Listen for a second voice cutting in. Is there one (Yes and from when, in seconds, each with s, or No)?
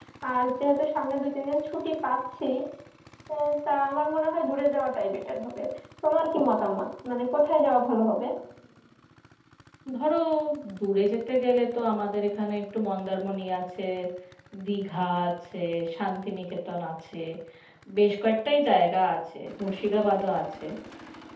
No